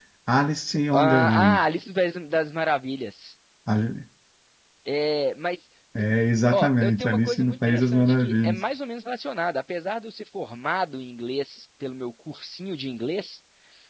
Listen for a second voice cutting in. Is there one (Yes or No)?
Yes